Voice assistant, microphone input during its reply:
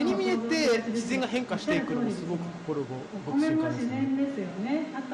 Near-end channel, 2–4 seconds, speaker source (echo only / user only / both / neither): both